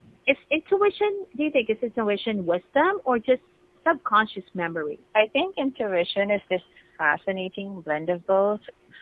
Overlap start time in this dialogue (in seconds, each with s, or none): none